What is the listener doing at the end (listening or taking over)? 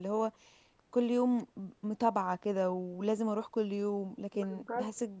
listening